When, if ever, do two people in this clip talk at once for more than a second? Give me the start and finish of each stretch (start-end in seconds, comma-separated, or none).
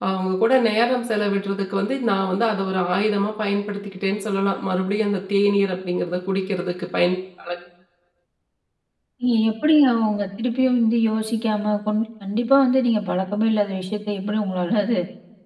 none